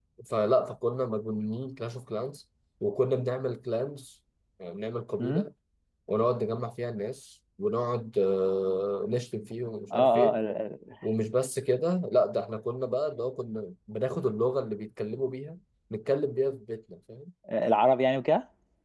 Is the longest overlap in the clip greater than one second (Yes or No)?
No